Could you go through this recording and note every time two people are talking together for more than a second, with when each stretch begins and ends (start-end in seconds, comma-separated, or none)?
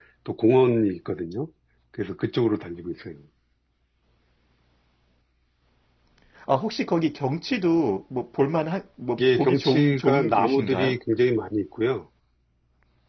9.2-11.0